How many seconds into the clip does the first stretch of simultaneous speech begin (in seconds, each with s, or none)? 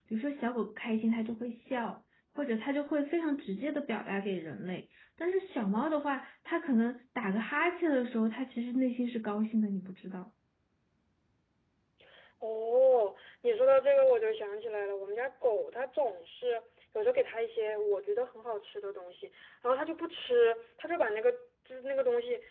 none